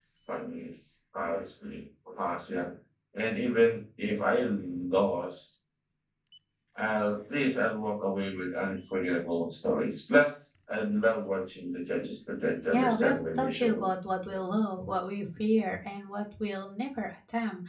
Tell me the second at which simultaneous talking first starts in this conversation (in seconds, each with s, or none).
12.7 s